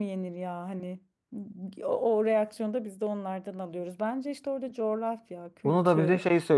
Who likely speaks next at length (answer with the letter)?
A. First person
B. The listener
B